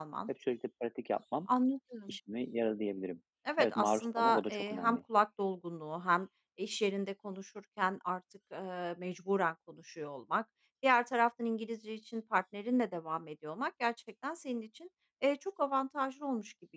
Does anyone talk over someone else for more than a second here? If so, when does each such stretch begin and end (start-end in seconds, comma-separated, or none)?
3.6-5.0